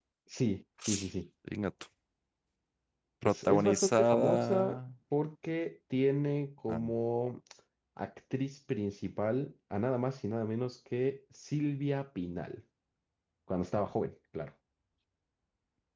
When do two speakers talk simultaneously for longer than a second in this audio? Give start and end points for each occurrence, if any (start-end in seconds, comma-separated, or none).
3.2-4.8